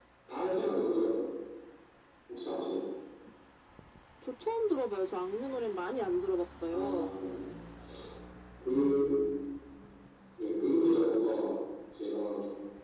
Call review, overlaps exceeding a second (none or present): none